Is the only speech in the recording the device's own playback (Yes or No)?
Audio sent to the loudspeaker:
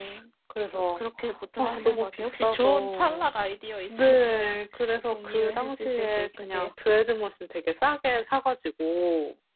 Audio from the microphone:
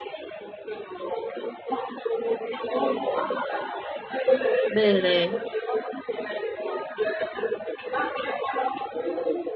No